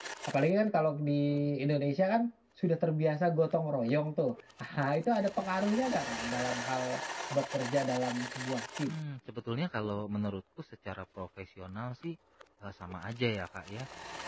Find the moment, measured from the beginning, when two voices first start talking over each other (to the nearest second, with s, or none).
none